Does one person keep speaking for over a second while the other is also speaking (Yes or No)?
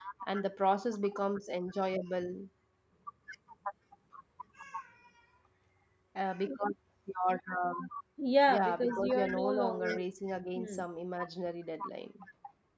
Yes